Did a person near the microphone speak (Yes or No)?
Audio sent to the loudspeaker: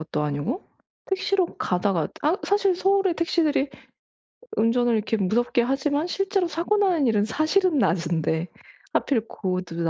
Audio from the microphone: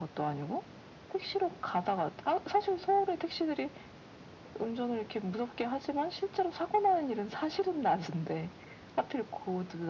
No